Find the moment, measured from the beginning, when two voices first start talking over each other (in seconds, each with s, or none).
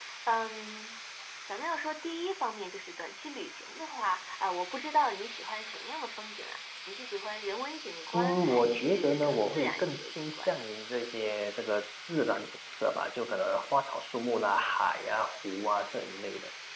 8.1 s